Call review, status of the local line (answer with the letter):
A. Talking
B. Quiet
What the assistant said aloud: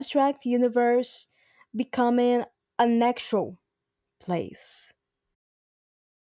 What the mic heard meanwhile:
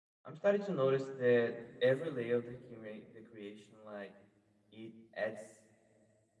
A